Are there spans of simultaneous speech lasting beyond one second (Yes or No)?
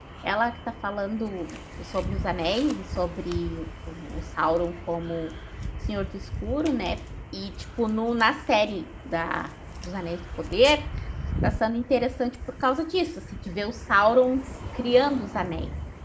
No